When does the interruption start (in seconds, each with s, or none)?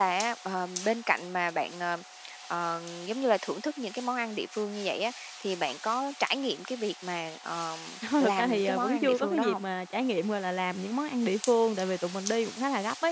8.2 s